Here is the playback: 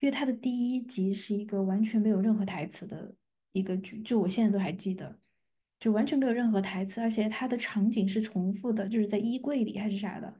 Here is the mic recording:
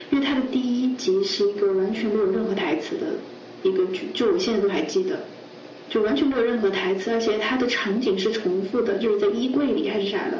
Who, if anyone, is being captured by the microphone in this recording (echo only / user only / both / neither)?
echo only